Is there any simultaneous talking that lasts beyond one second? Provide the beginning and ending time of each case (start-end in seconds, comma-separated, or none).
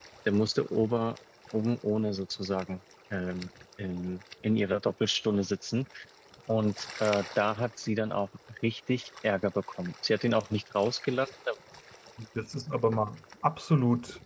none